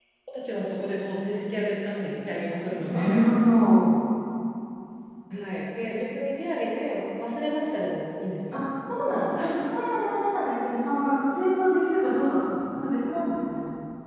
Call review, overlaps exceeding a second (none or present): none